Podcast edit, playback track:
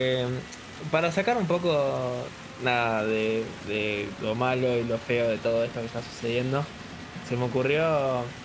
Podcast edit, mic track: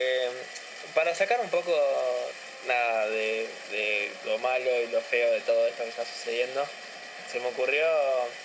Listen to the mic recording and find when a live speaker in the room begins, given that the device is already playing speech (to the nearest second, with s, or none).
none